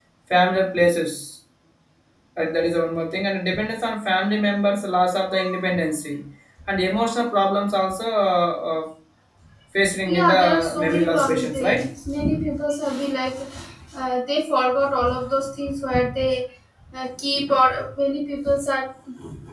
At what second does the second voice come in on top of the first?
10 s

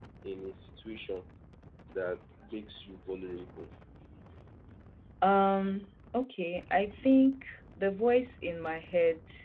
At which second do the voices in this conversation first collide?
none

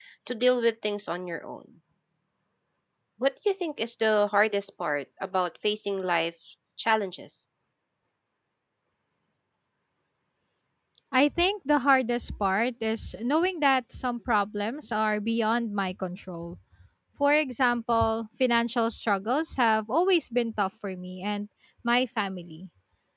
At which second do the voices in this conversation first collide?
none

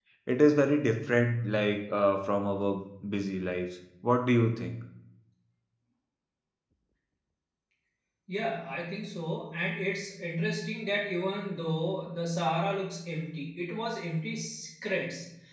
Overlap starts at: none

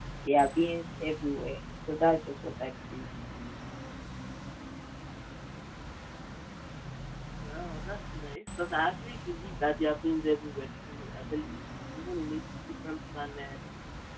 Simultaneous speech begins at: none

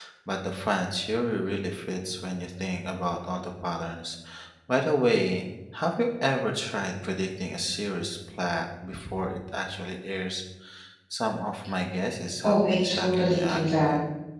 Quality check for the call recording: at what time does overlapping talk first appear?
12 s

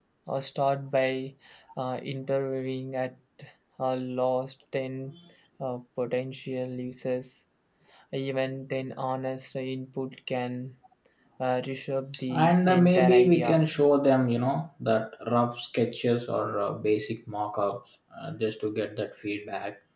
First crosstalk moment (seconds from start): 12 s

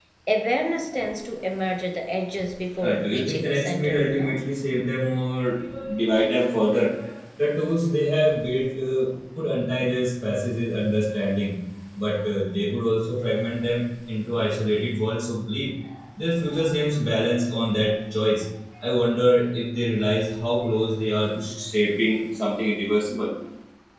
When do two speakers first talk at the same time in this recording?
3 s

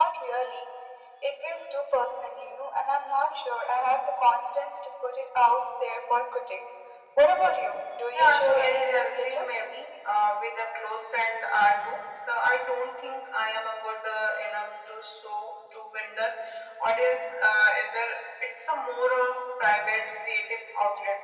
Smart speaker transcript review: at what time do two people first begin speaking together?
8 s

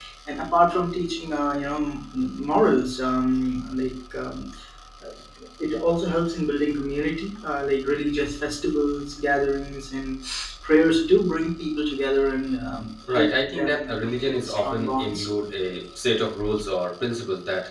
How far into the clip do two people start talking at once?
13 s

